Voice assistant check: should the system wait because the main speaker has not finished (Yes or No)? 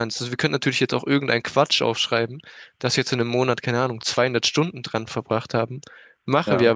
Yes